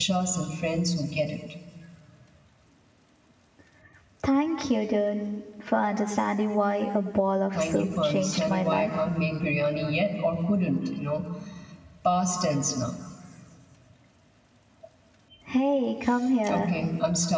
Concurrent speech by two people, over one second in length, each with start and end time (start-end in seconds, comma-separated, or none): 7.5-8.9